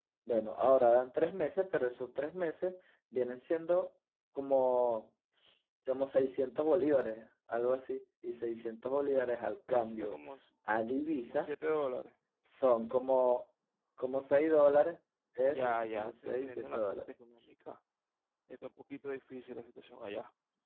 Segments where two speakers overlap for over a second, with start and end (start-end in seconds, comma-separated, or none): 15.5-17.0